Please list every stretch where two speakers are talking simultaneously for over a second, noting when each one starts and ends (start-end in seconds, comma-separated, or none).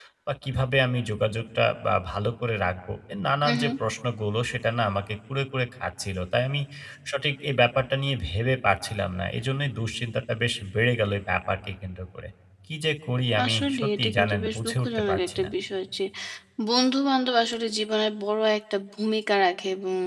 13.4-15.5